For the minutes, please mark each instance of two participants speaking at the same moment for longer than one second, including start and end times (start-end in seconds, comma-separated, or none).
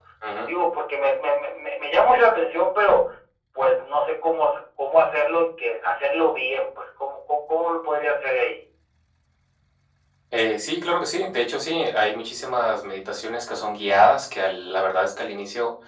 none